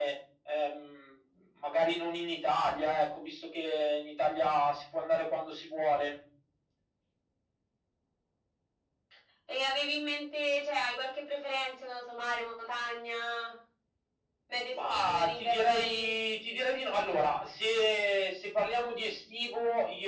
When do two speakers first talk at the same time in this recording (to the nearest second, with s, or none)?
15 s